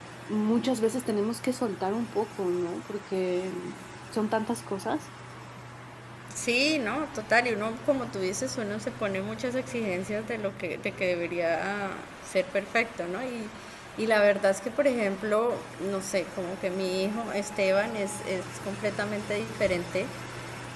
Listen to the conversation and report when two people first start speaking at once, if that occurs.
none

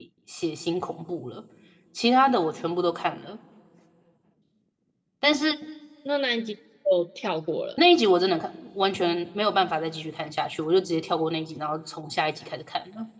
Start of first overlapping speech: none

